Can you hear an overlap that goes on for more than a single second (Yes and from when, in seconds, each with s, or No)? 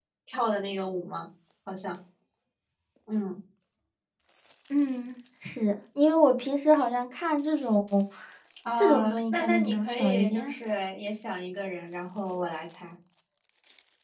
Yes, from 8.8 s